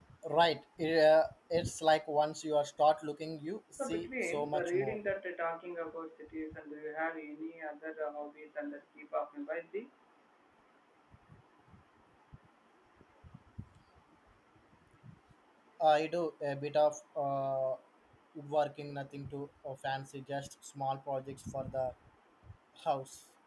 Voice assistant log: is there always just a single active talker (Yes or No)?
No